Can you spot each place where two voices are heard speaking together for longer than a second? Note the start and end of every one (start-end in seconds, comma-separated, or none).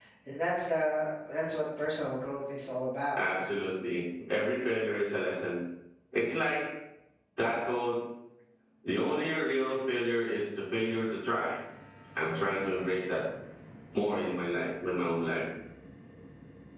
none